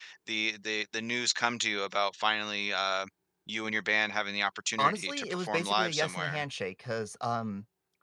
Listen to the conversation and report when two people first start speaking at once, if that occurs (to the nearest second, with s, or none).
5 s